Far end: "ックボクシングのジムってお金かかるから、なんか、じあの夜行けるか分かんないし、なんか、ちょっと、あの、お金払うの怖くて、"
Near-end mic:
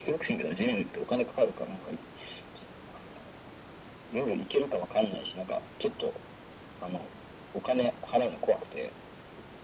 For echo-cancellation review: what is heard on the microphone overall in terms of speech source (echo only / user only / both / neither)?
echo only